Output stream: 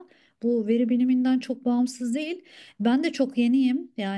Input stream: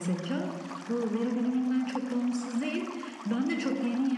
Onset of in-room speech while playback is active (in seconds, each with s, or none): none